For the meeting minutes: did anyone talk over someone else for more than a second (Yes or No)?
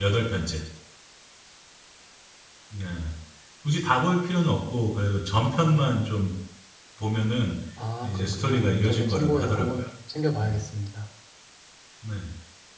Yes